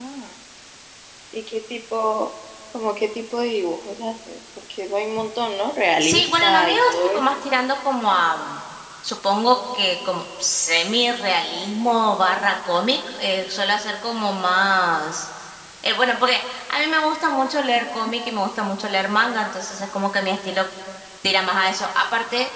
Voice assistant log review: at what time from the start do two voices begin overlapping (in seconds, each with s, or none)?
6.0 s